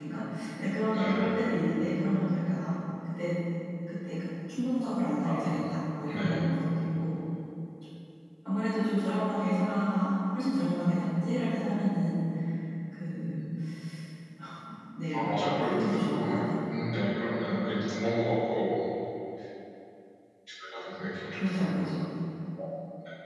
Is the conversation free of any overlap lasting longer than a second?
No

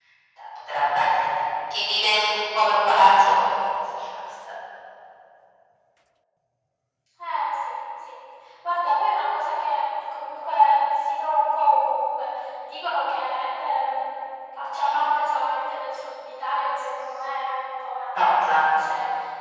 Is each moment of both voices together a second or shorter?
Yes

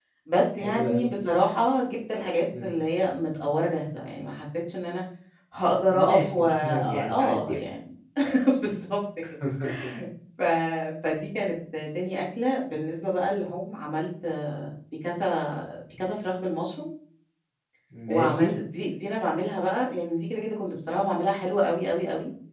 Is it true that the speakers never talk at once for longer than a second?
No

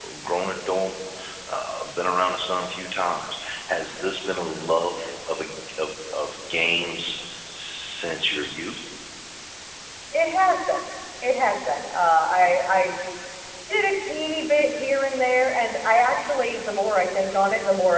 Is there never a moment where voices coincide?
Yes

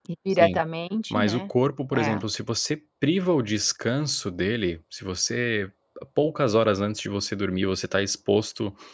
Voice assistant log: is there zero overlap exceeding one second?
Yes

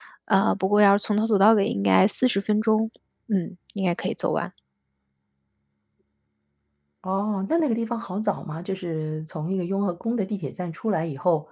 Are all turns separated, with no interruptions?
Yes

